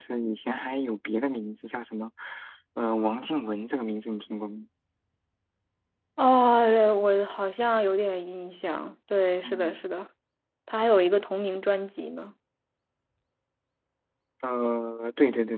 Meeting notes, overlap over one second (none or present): none